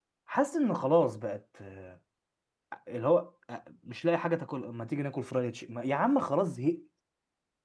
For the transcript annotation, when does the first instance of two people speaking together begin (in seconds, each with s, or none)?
none